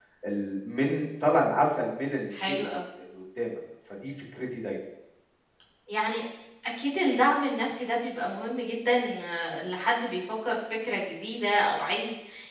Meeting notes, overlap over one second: none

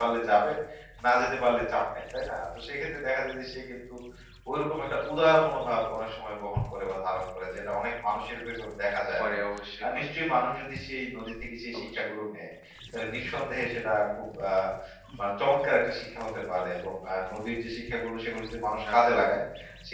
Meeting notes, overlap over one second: none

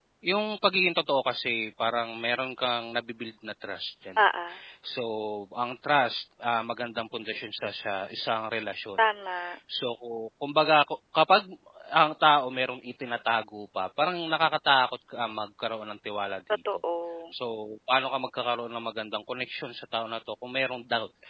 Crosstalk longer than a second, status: none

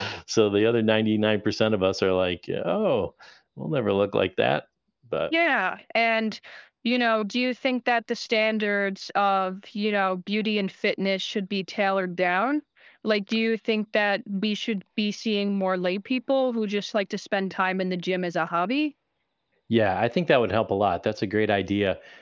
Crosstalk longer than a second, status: none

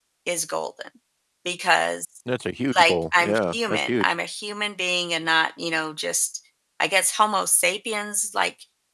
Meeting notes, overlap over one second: present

